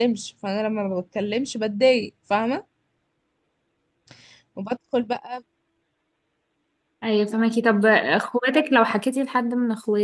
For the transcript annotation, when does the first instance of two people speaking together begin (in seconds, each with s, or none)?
none